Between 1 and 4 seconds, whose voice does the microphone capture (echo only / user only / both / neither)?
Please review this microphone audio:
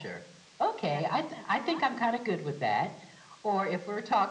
both